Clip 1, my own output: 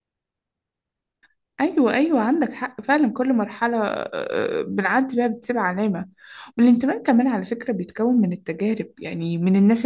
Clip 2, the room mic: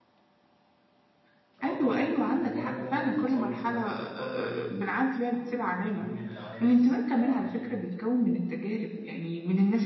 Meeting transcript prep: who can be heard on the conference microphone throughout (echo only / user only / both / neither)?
both